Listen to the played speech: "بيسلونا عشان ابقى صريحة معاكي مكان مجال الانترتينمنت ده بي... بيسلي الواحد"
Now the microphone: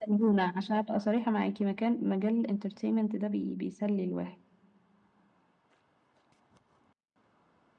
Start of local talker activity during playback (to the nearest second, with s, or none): none